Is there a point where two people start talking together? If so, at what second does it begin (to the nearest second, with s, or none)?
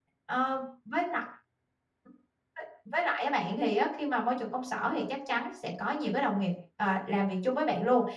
none